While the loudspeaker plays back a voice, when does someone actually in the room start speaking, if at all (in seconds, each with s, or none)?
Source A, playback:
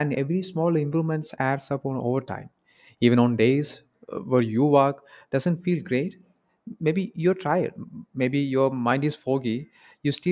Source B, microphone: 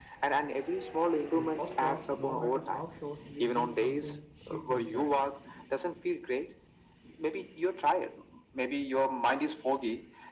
1.3 s